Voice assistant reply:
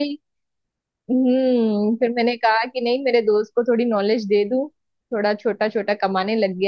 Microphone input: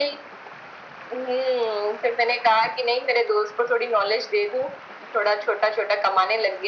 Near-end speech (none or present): none